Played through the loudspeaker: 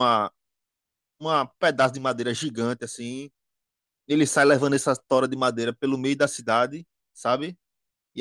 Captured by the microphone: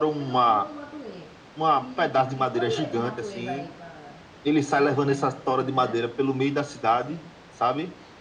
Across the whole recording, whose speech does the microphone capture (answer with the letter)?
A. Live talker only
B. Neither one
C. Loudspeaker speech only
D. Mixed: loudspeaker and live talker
D